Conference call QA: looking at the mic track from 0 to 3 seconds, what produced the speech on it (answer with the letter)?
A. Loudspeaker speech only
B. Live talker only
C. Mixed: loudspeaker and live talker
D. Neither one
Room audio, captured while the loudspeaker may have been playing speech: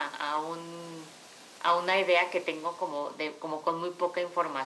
A